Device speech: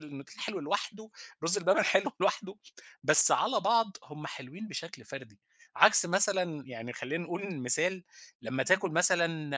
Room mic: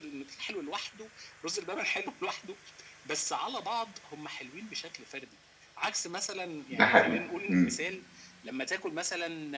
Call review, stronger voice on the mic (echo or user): user